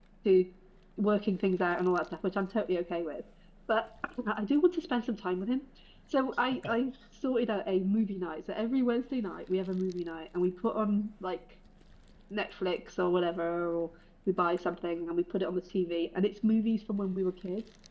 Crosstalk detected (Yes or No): No